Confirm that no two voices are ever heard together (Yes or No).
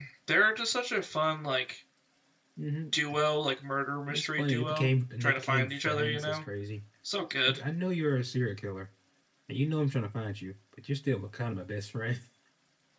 No